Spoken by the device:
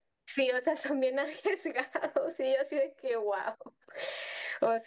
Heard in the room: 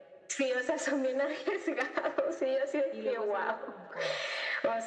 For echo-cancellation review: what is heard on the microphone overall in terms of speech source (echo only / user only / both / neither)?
both